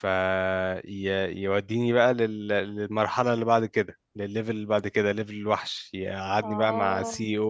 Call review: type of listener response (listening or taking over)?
listening